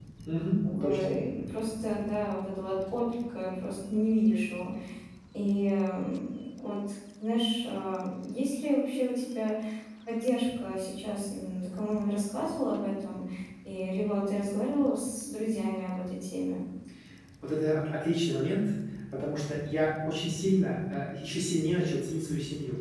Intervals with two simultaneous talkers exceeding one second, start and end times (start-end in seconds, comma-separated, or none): none